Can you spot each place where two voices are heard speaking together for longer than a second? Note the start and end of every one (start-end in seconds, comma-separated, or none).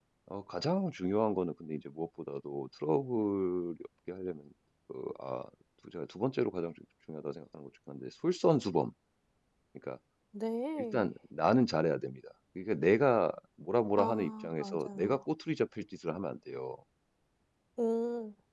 14.0-15.2